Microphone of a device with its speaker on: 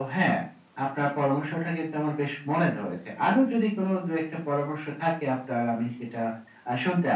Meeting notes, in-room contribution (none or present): none